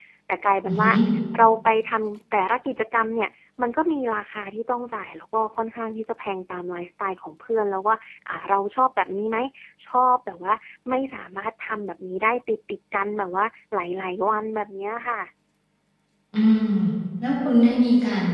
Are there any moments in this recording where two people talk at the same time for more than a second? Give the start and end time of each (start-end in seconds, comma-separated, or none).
none